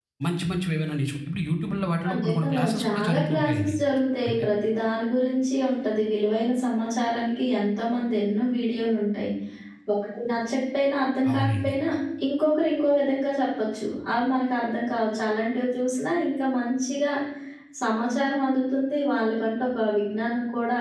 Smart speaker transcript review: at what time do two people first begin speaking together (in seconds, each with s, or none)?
2.1 s